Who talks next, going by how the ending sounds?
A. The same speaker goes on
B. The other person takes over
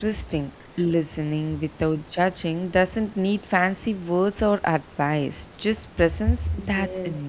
B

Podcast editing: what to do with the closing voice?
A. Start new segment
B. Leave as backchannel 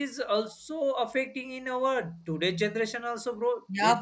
A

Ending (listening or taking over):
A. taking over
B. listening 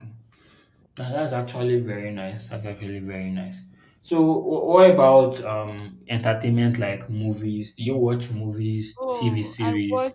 A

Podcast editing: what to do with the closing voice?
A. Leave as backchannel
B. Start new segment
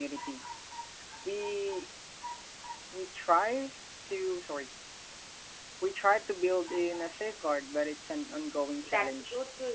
B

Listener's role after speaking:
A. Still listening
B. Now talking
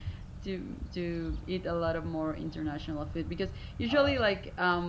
A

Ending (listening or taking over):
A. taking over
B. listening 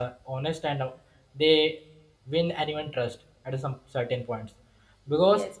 A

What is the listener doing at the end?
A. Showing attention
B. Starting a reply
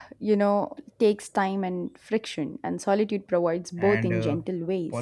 B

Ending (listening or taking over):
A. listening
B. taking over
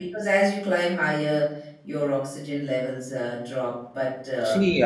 B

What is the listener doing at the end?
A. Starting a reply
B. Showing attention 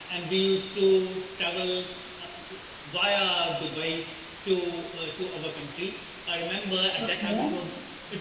B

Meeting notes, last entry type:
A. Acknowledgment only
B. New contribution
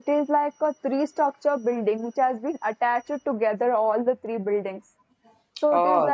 A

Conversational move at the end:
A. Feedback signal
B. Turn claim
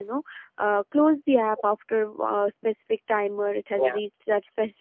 A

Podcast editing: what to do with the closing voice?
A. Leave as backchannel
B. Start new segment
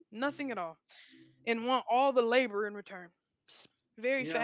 B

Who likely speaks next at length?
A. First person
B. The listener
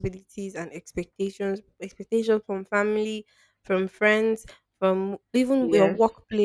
A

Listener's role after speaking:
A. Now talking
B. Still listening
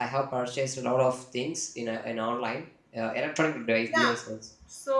A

